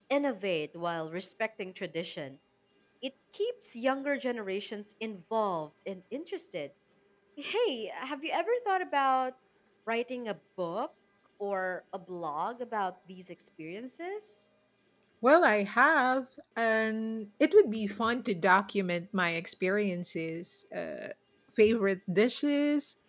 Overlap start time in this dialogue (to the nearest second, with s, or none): none